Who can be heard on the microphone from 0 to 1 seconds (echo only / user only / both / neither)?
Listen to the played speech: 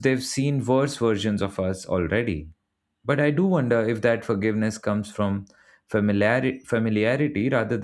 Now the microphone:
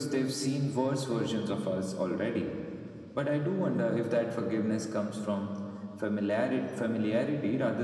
echo only